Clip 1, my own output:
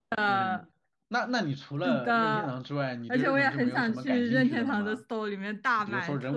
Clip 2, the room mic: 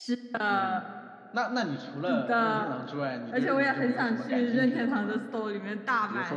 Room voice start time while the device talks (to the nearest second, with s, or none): none